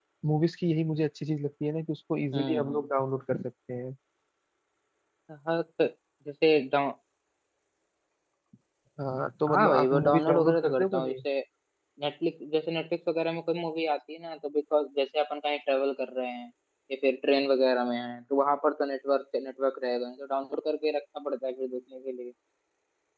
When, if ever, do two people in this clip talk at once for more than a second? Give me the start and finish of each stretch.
9.5-11.1

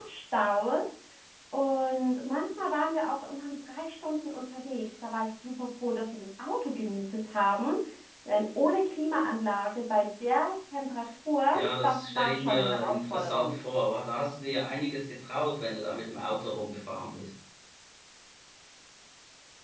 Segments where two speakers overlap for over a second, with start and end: 11.5-13.6

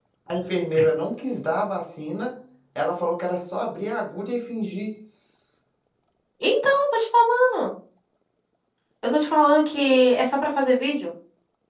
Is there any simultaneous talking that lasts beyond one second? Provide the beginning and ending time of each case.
none

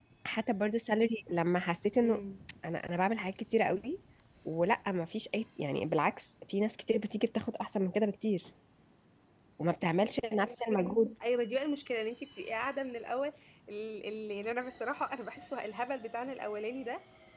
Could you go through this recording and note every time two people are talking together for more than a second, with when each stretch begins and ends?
none

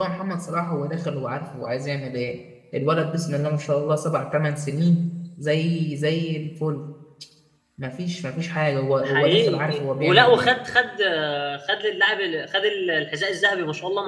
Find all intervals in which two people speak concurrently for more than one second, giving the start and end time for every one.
9.0-10.5

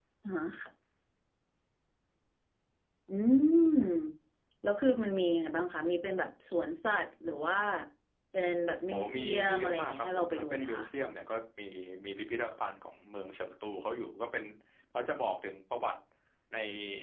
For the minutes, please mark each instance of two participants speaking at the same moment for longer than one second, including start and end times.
8.9-10.8

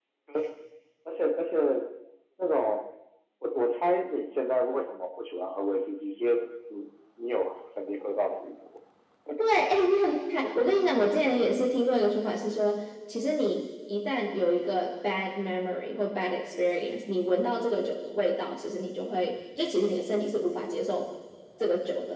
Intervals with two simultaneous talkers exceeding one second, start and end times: none

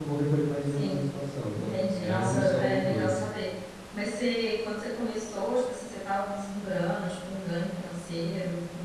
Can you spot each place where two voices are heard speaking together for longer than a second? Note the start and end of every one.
1.5-3.2

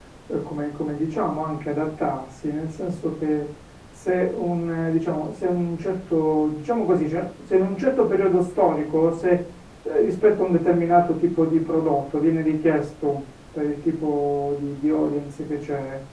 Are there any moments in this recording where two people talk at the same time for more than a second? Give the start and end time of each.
none

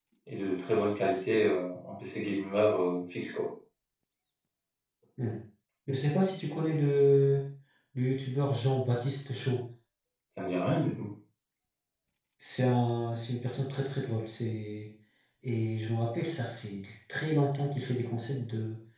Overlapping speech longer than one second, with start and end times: none

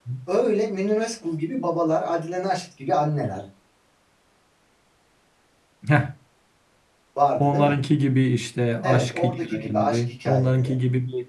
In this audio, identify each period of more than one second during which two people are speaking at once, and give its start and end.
8.8-10.8

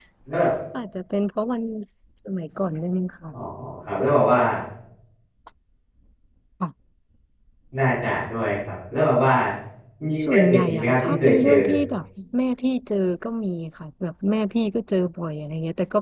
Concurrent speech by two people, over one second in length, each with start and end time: 10.2-11.5

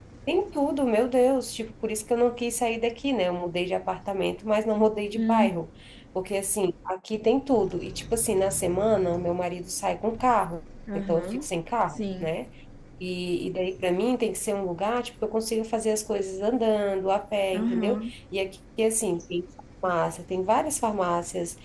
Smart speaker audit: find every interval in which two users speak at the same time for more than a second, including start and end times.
none

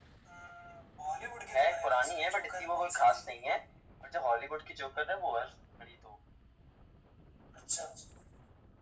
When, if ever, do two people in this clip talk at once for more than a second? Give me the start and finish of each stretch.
1.5-3.2

